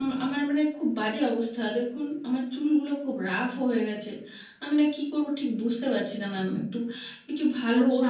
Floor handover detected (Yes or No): Yes